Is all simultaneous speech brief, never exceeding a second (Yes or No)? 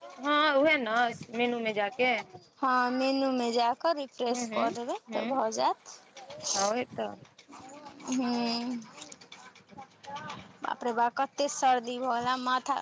Yes